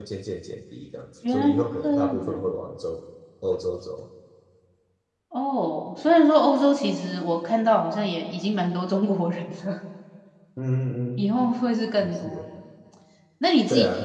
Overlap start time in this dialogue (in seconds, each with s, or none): 1.3 s